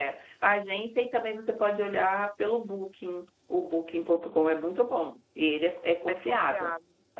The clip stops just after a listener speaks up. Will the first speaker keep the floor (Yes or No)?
Yes